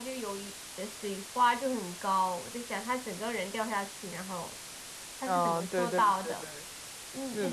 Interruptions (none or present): present